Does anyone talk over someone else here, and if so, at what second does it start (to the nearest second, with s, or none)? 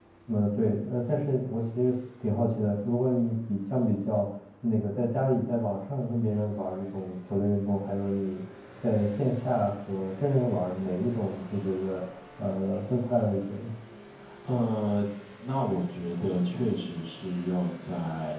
none